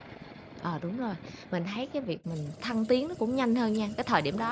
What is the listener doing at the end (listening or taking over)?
listening